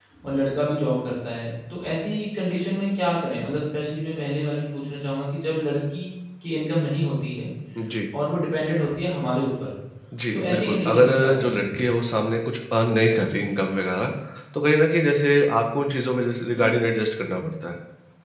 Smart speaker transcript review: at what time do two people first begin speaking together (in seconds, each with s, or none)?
10.3 s